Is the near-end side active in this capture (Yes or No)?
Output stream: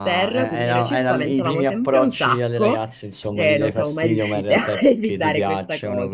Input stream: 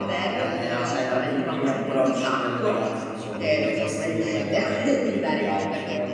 Yes